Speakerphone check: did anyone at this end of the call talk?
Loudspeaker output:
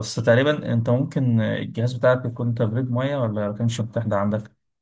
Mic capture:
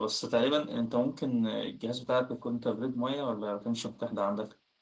No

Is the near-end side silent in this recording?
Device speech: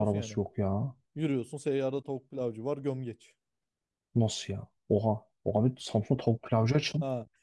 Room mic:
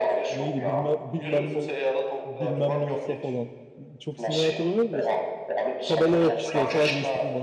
No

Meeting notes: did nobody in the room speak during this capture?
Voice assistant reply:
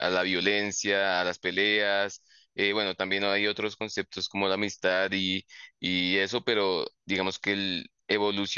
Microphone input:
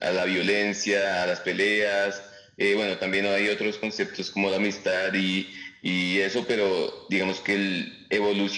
Yes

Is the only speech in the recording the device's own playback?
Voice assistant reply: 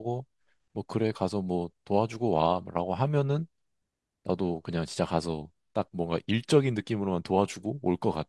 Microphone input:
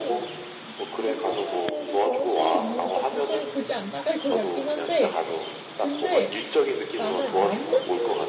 No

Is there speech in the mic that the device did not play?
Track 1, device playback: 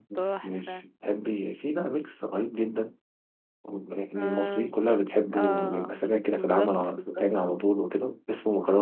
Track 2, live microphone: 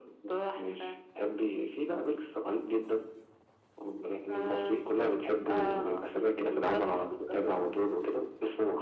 No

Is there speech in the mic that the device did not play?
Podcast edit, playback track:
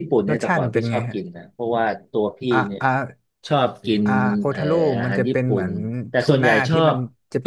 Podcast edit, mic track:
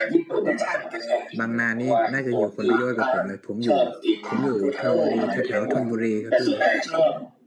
Yes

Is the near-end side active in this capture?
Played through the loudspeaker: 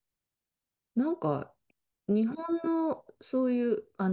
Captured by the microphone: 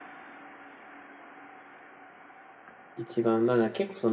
Yes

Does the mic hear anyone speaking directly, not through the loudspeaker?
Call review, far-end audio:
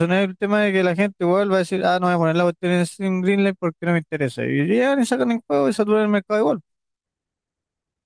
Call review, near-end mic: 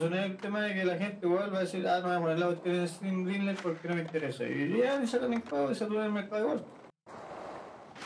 No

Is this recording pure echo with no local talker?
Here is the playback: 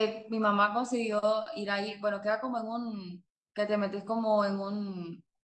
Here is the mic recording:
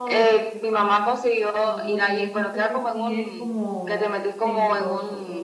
No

